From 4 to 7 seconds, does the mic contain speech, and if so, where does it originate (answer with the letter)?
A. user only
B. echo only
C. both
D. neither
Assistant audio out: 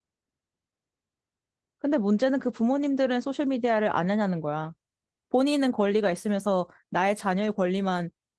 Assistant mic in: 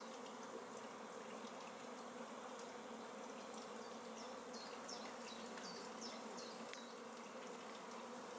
D